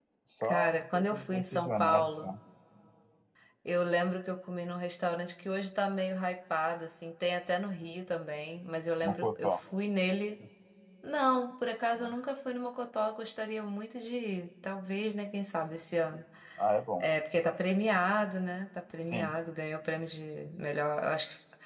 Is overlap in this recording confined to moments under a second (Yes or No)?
No